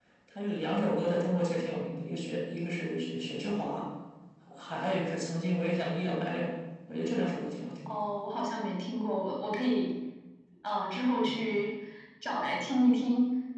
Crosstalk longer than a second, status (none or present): none